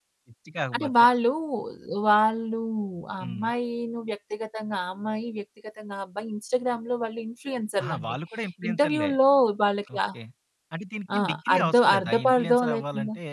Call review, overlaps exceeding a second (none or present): present